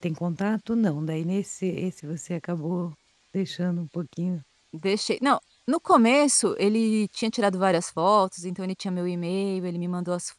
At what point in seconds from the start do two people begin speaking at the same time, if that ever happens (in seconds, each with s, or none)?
none